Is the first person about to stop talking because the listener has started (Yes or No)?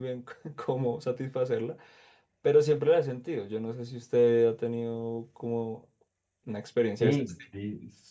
Yes